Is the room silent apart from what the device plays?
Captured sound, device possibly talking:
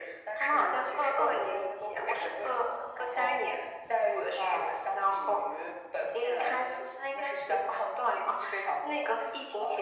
Yes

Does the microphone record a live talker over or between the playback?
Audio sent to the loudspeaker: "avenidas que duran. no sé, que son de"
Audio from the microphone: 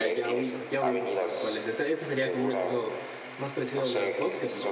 Yes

